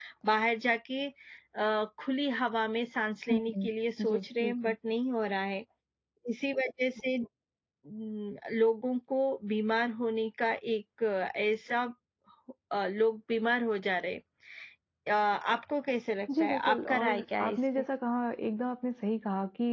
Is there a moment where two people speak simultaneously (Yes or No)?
Yes